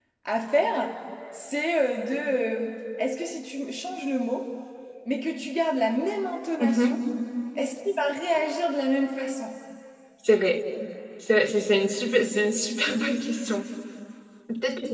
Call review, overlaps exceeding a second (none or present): none